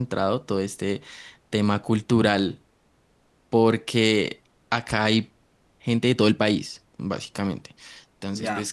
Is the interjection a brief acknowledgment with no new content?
Yes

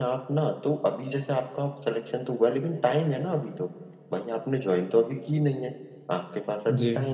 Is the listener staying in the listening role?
Yes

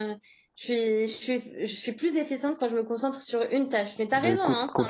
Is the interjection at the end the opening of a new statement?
Yes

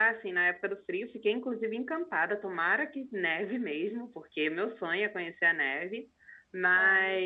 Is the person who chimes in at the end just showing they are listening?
Yes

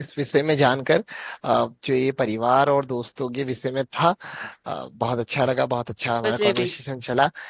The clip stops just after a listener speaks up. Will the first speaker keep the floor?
Yes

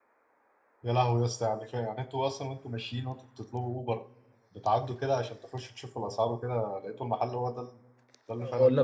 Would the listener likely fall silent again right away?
No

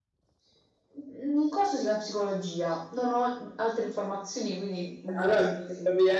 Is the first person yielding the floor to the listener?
Yes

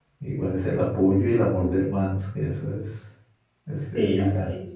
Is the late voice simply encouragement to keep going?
No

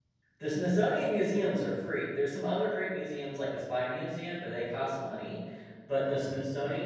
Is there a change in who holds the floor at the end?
No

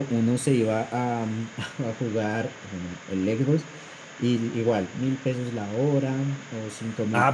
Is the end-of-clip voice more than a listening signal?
Yes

